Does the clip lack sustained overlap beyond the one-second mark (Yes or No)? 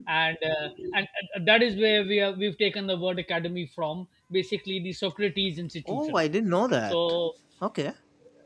Yes